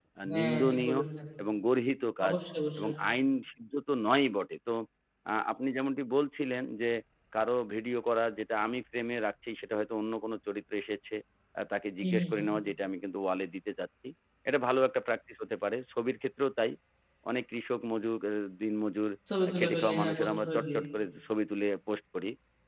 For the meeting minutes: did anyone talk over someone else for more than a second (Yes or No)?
Yes